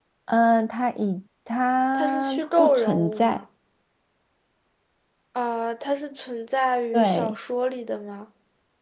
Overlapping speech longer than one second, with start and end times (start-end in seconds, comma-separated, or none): 1.9-3.4